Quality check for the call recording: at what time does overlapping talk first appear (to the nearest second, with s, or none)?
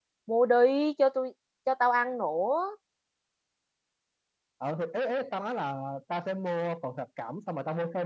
none